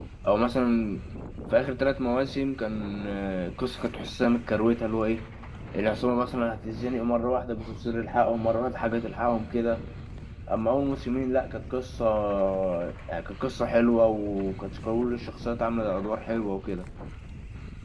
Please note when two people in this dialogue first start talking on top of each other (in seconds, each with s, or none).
none